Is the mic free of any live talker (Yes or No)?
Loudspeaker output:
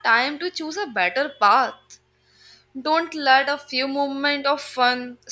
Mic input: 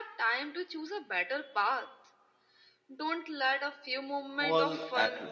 No